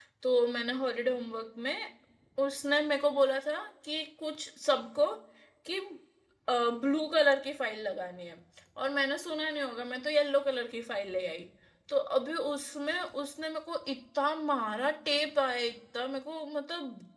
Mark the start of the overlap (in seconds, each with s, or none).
none